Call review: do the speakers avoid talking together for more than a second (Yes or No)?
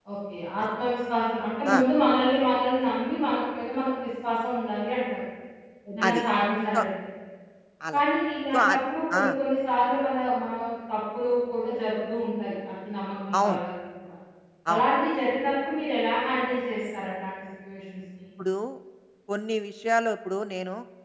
Yes